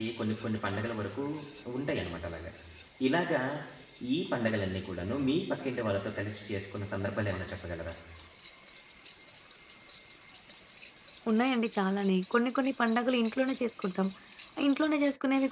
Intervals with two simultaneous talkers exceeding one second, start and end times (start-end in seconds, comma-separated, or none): none